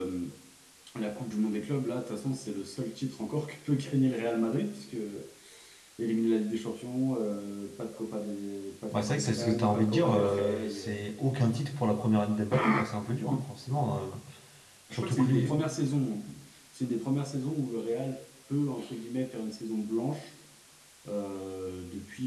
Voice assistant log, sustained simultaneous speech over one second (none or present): present